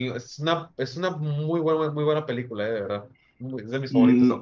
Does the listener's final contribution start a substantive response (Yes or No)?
Yes